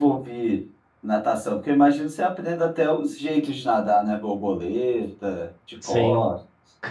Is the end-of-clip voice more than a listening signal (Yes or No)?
Yes